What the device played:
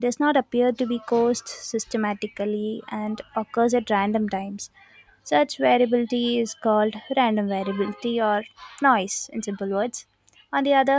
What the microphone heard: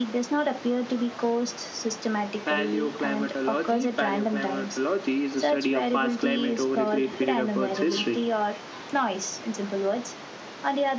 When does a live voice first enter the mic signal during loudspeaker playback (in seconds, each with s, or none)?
2.4 s